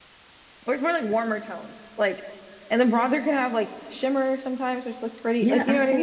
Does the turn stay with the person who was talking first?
No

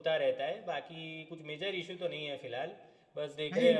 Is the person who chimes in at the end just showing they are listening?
Yes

